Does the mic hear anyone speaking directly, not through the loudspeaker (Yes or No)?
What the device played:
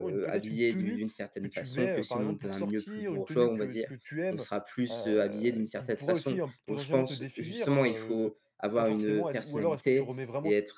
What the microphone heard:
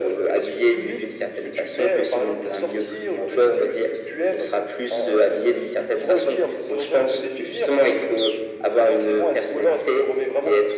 No